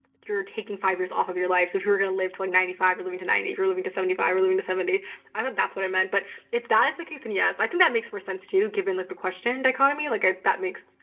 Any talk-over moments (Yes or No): No